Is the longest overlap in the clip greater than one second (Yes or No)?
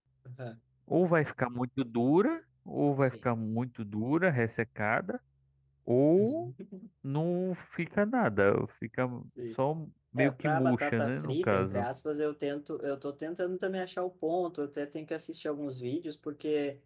Yes